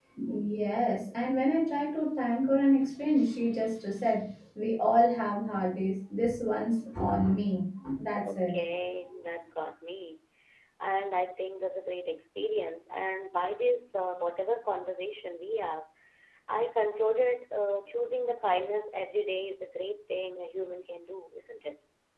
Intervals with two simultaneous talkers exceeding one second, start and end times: none

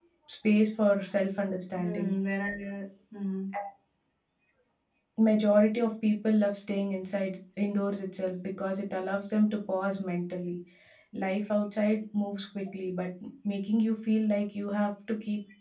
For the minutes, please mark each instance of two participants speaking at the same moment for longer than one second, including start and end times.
none

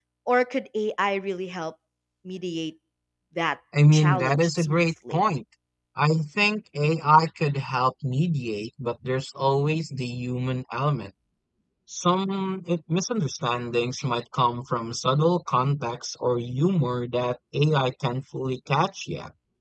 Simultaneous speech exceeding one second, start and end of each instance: 3.9-5.2

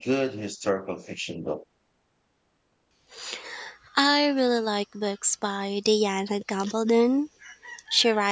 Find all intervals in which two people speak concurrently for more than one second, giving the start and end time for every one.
none

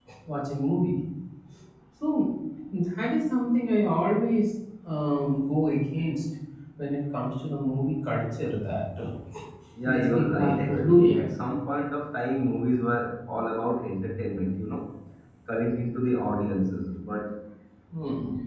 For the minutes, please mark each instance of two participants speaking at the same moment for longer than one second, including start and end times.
9.8-11.2

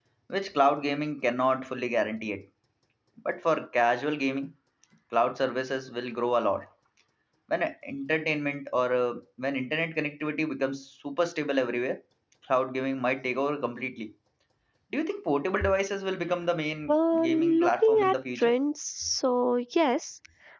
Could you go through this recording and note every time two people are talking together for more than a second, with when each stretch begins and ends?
16.9-18.6

